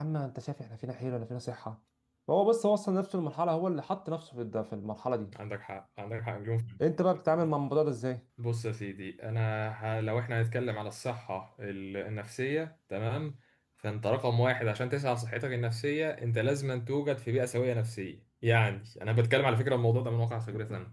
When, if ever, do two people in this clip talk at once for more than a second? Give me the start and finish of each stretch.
none

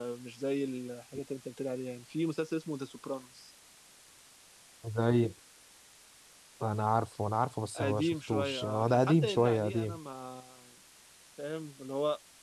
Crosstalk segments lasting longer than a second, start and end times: 7.8-10.0

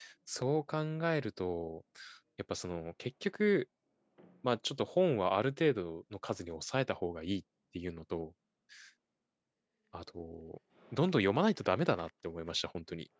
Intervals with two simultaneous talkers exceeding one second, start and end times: none

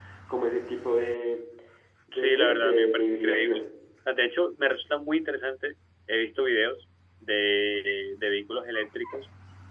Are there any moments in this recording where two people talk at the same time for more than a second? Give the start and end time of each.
2.1-3.6

